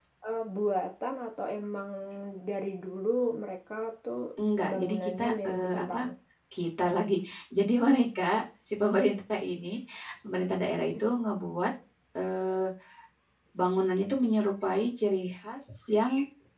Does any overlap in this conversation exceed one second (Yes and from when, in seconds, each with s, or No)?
Yes, from 4.7 s